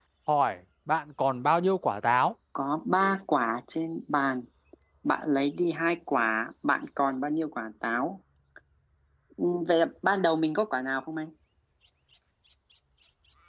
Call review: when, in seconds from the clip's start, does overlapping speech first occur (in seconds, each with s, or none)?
none